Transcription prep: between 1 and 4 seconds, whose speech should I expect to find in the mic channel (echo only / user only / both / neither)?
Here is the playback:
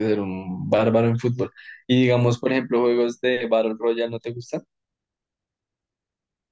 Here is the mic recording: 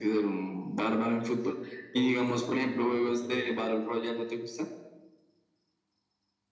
both